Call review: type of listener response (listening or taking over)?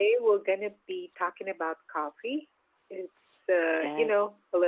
listening